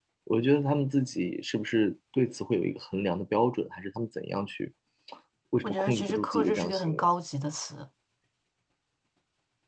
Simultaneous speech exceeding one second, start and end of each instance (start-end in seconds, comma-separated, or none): 5.6-7.1